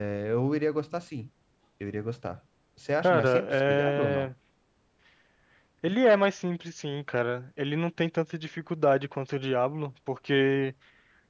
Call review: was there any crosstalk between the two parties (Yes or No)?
Yes